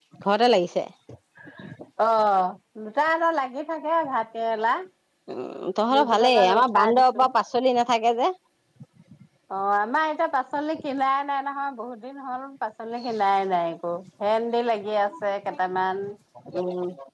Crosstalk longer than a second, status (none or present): present